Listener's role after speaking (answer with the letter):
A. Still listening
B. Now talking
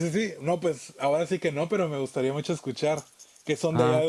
B